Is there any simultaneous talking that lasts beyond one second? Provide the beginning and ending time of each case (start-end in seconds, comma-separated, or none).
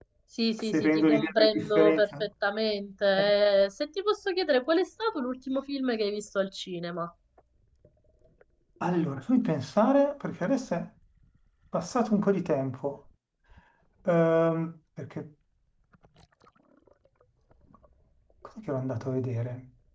0.7-2.3